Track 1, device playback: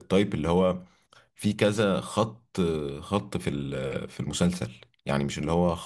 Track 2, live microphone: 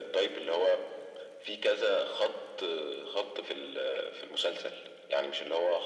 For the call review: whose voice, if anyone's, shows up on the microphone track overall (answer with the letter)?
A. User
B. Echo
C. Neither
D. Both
B